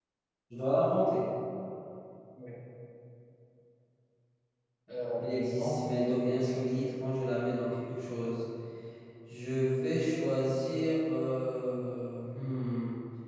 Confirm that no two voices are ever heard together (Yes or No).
No